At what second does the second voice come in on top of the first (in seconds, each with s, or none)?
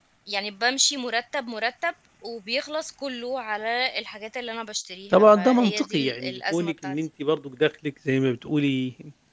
5.1 s